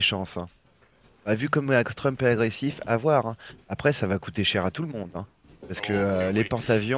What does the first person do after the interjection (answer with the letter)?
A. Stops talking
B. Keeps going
A